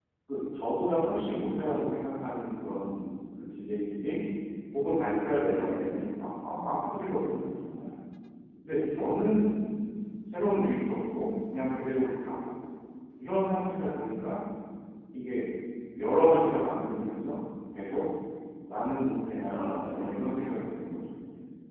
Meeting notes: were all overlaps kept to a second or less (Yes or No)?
No